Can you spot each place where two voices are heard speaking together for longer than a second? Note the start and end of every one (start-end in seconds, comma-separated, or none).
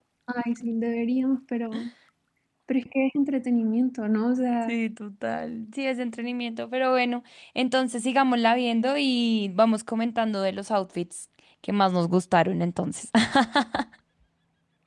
none